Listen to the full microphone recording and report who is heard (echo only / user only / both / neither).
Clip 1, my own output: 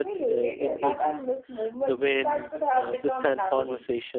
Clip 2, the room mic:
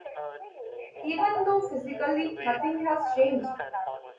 both